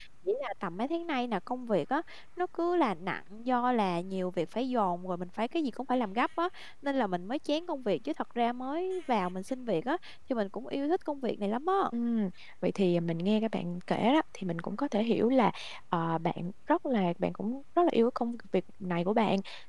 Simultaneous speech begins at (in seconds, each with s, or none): none